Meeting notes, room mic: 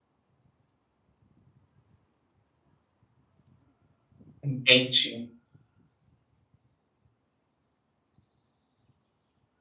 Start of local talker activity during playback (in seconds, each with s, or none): 4.4 s